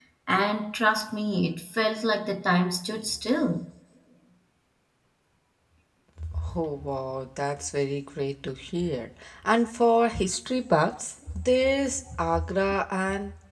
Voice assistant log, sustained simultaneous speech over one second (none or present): none